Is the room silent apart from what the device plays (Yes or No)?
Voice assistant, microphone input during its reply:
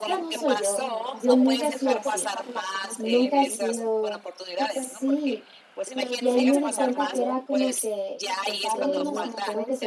No